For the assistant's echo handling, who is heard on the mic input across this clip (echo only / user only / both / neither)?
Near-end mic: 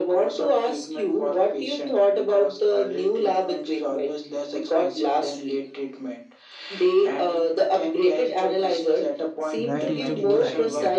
both